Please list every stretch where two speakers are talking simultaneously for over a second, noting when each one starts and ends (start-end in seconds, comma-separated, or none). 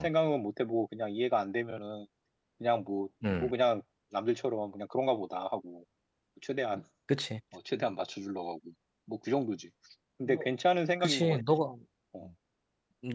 none